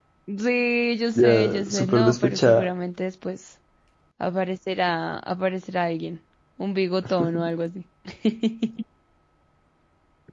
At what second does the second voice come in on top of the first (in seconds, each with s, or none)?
1.2 s